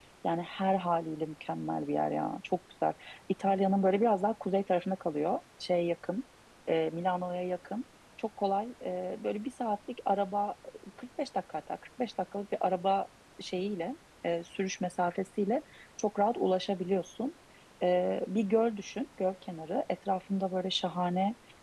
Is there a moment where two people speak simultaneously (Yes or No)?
No